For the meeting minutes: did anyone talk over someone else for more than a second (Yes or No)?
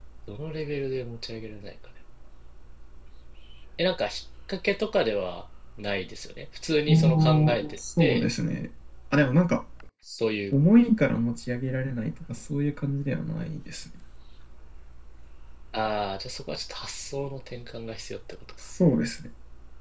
Yes